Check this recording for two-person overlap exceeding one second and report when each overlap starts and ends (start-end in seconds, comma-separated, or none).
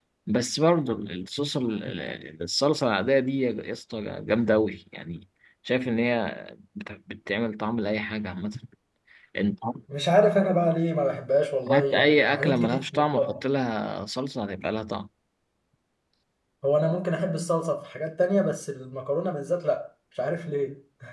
11.7-13.4